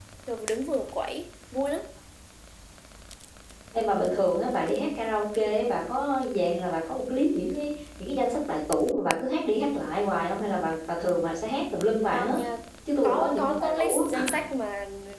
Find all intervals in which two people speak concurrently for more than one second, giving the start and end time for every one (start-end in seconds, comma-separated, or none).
13.0-14.3